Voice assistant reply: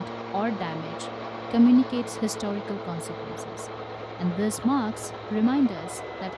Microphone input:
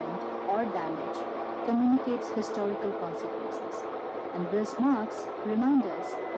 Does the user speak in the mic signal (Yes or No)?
No